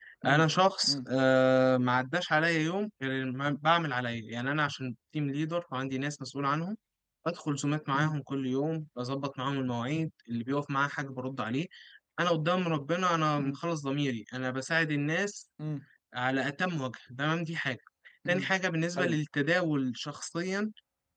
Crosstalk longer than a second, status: none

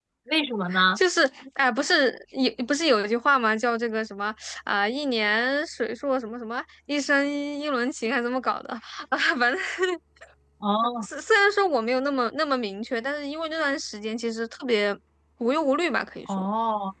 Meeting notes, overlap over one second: none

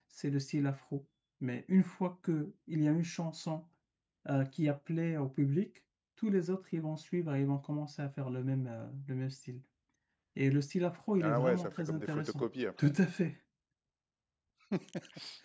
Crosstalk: present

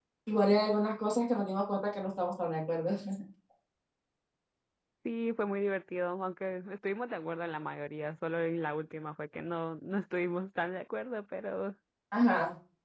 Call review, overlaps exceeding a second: none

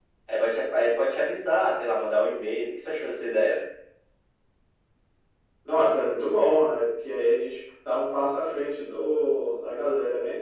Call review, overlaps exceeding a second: none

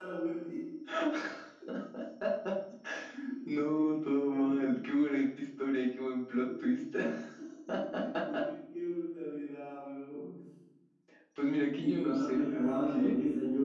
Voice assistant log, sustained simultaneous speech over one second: present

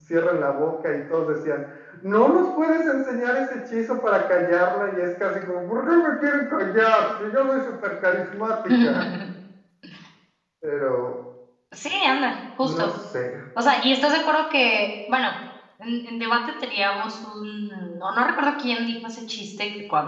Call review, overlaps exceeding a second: none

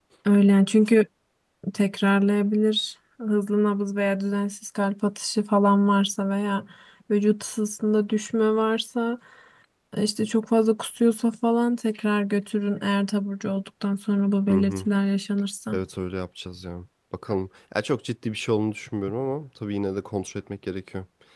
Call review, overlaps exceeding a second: none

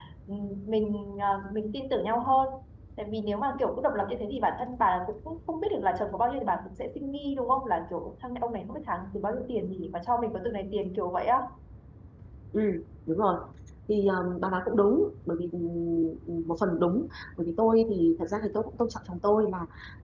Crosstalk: none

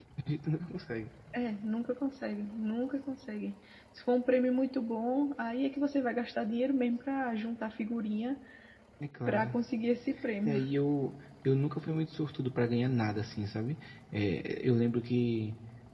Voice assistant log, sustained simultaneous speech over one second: none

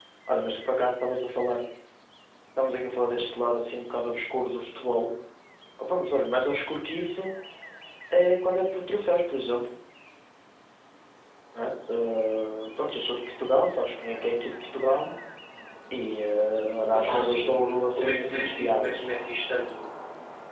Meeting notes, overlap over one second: present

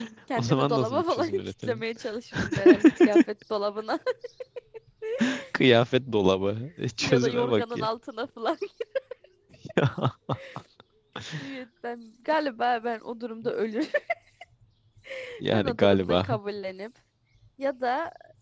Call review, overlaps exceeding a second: present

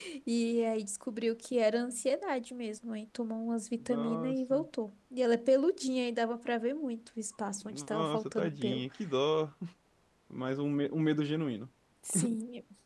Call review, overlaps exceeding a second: present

